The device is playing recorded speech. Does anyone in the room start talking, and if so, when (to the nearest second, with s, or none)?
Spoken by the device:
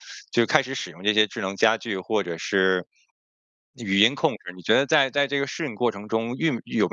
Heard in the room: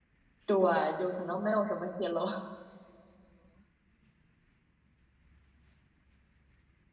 0 s